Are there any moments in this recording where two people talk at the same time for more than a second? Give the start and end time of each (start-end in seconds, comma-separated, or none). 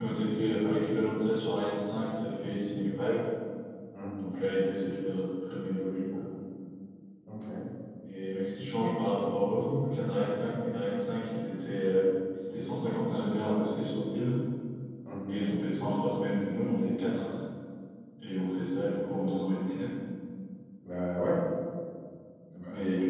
none